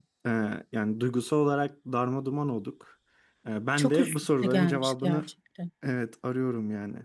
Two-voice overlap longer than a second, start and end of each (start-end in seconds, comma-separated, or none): 3.8-5.2